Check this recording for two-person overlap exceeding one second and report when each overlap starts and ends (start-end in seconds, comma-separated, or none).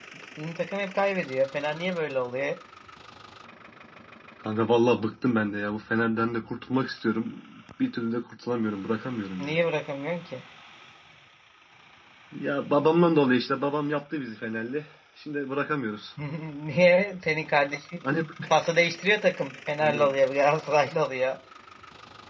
none